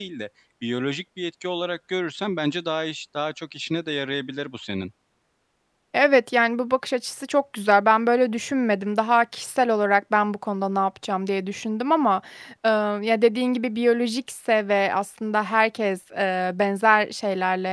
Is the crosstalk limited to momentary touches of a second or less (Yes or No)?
Yes